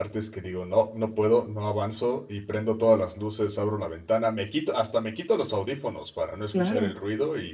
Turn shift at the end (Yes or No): No